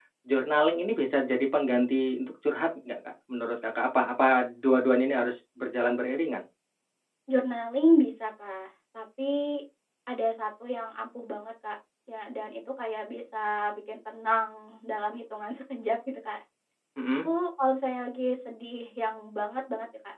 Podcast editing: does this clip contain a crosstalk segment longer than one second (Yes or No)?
No